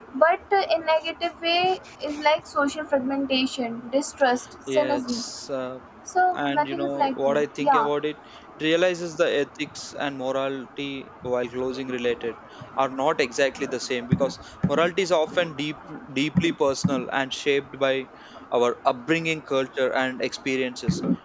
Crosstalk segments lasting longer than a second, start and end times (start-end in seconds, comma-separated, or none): 6.3-7.9